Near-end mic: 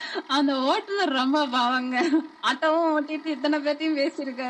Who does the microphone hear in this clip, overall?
echo only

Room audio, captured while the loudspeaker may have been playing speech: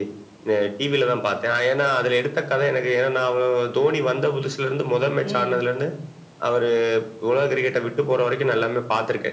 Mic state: both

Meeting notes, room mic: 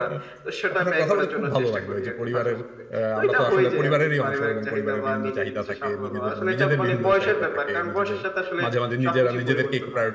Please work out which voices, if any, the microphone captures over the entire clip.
both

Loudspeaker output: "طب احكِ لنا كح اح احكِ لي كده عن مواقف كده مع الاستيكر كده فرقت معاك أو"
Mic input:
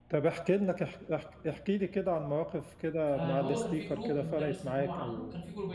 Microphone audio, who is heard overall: both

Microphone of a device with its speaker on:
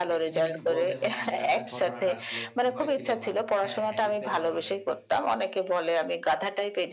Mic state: both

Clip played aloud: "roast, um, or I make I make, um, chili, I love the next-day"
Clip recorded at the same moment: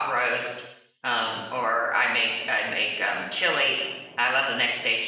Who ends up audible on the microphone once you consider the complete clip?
echo only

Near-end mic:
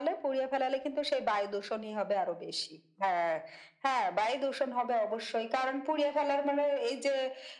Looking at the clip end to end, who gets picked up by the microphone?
echo only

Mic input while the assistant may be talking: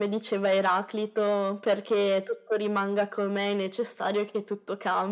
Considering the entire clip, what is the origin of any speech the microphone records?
echo only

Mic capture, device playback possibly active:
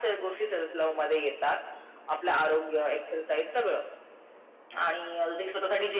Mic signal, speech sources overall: echo only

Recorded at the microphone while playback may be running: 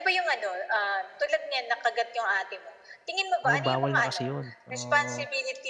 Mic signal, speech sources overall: both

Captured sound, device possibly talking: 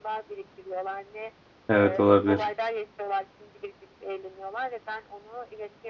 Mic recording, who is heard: both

